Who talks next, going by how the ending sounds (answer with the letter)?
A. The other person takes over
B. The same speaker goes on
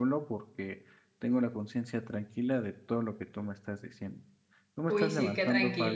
A